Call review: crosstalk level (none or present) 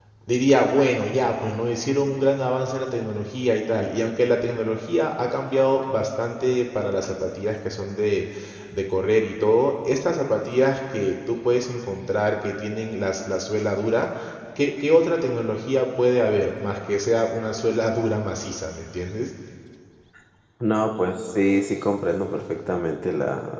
none